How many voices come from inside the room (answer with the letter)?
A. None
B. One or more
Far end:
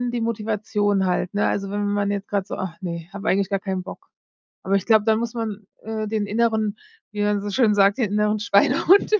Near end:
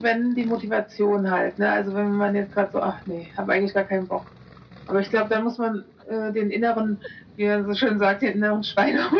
A